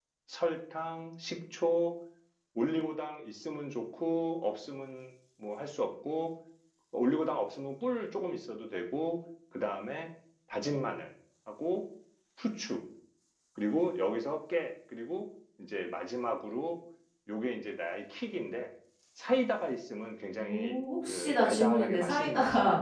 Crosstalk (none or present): present